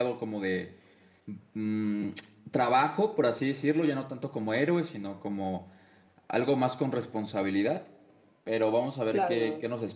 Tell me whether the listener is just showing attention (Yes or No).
Yes